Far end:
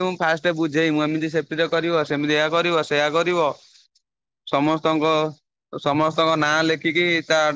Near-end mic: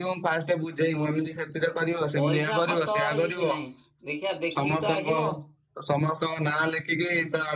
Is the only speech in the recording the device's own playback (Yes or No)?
No